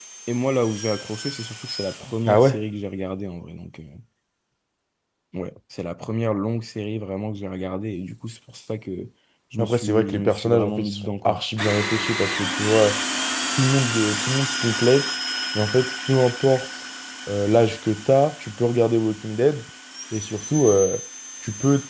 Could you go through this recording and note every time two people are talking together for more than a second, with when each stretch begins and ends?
9.6-11.4

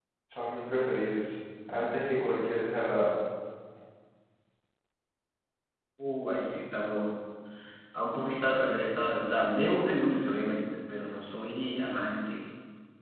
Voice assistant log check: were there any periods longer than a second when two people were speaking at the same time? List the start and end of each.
none

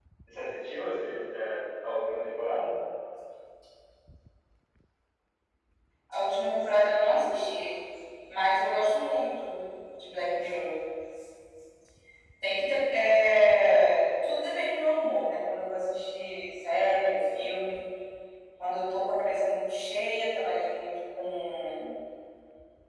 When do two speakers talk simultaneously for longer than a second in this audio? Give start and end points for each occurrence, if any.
none

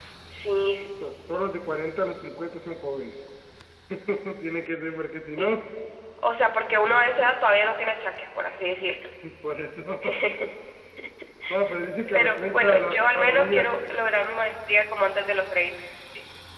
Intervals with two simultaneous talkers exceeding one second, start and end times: 12.1-13.7

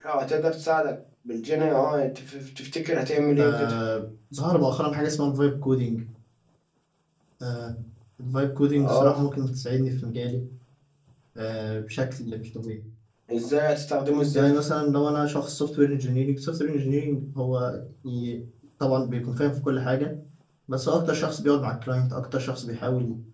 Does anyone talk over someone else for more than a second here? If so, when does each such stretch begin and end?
none

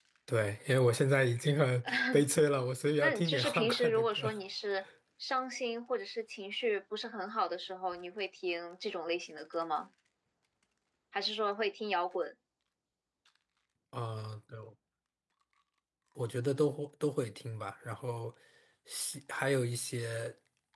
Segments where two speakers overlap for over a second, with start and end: 3.0-4.3

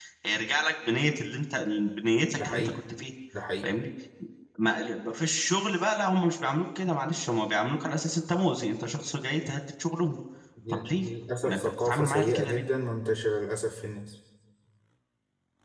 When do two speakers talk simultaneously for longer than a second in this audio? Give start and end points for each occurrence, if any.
11.5-12.7

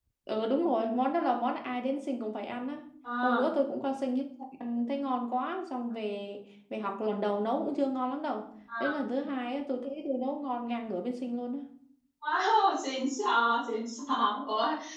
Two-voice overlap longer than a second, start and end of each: none

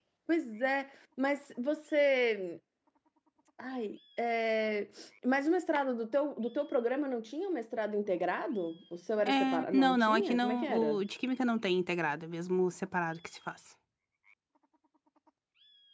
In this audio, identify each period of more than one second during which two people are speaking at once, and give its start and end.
9.3-11.0

